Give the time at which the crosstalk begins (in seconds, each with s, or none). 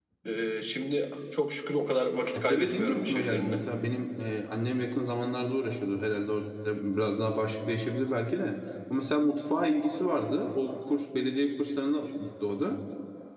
2.3 s